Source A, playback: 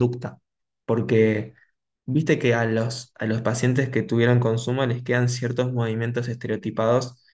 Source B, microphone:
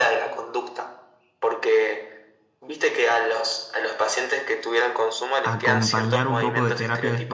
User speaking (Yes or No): Yes